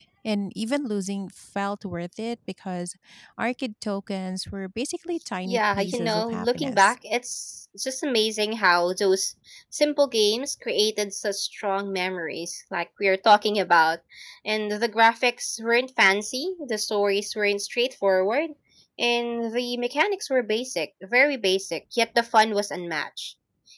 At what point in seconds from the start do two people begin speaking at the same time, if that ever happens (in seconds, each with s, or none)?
5.4 s